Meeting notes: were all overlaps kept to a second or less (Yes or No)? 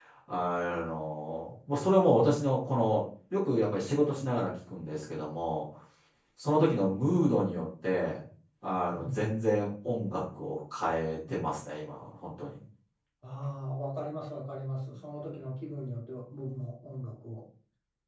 Yes